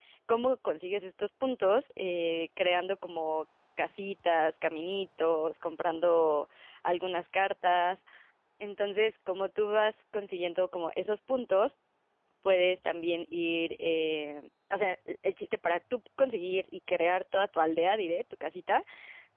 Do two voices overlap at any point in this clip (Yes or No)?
No